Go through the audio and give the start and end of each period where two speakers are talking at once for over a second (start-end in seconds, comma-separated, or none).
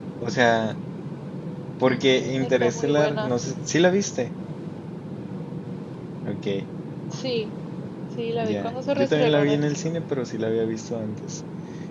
1.9-3.3, 8.4-9.9